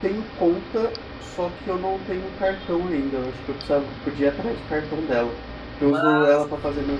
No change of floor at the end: Yes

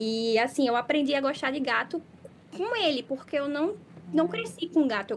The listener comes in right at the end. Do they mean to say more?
No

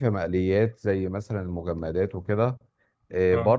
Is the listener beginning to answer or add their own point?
No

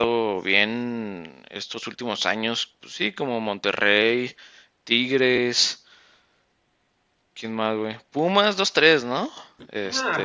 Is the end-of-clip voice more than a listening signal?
Yes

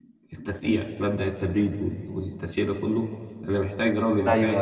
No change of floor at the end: Yes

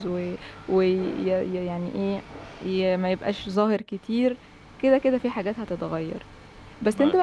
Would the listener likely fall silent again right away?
Yes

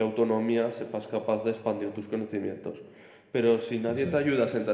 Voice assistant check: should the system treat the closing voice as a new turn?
No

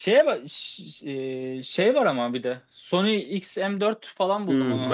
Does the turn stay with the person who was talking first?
No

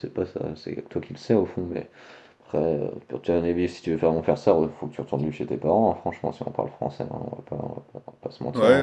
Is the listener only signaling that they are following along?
No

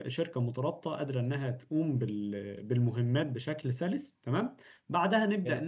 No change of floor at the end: Yes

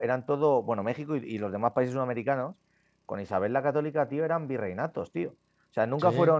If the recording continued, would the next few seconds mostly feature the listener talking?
No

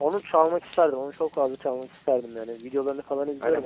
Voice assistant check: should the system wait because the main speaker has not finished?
No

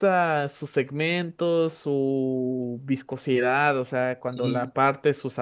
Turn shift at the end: No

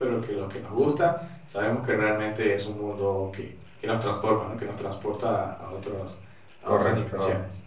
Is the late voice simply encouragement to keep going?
No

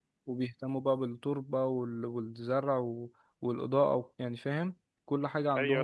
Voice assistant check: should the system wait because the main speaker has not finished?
No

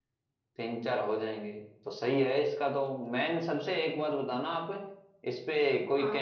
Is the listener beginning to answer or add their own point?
No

